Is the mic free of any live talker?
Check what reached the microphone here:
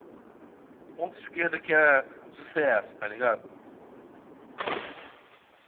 No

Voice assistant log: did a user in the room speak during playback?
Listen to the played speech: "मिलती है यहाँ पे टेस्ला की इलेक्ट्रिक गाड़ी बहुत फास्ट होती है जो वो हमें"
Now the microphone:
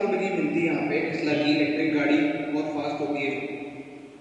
Yes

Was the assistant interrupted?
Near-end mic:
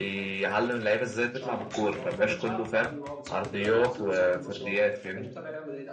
Yes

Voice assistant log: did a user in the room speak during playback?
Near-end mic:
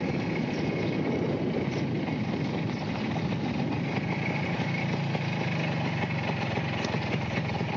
No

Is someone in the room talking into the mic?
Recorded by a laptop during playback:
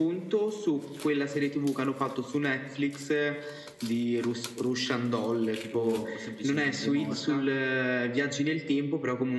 Yes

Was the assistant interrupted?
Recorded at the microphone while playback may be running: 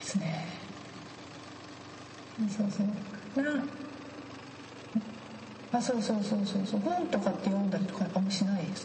No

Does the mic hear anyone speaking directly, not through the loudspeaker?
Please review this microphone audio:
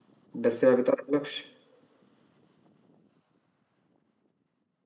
Yes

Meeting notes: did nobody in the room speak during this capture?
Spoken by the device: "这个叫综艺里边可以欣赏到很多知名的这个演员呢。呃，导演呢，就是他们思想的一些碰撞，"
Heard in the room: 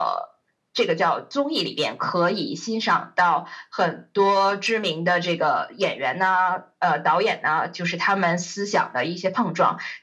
Yes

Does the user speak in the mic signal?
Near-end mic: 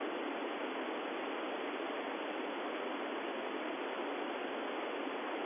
No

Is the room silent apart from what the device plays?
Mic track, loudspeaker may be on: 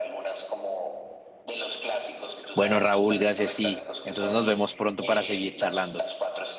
No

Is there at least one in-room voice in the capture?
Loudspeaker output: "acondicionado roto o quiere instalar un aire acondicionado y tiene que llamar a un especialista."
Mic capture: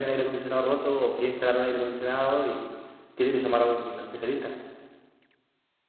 No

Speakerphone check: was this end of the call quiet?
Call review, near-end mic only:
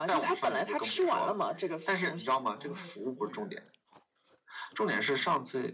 No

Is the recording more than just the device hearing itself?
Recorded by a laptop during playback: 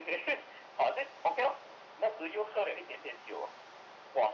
No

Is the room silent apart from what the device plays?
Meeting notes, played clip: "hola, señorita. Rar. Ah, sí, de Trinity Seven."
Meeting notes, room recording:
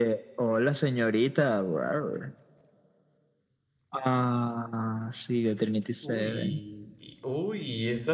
No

